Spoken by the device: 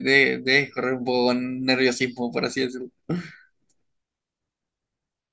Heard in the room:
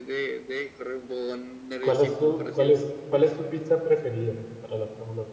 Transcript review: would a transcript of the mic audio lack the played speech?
No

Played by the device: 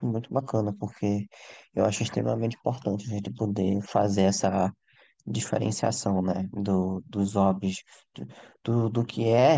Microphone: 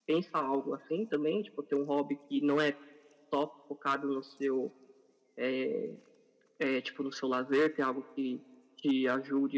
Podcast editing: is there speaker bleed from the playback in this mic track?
No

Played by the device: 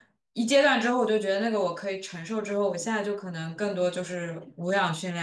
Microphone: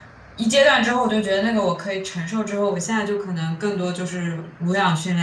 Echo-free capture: No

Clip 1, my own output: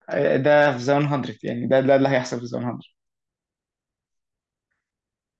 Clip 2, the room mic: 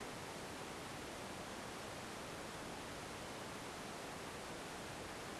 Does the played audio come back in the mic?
No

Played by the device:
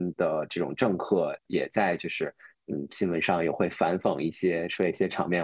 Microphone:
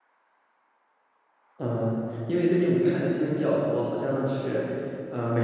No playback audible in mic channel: Yes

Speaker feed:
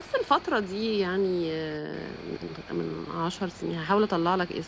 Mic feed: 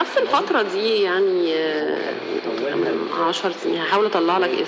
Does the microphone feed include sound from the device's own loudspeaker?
Yes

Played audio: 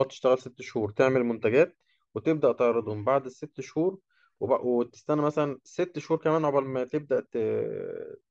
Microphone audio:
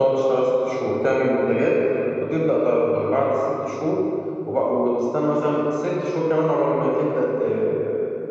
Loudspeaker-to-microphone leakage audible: Yes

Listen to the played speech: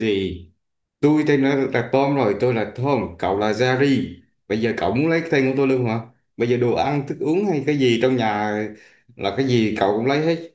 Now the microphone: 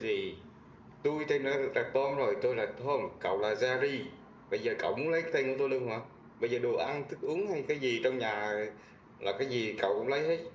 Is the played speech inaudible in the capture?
No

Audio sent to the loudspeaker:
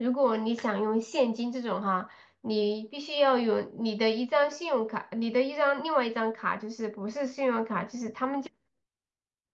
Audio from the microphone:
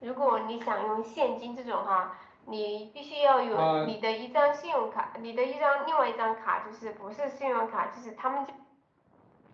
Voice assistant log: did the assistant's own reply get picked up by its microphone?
Yes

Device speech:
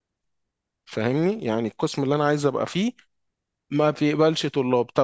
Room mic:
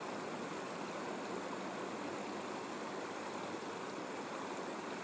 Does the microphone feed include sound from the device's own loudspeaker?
No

